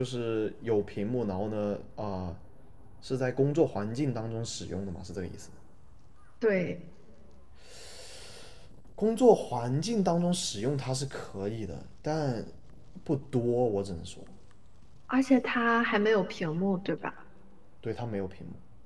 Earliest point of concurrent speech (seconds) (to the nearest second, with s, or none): none